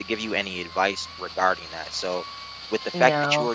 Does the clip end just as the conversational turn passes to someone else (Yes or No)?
No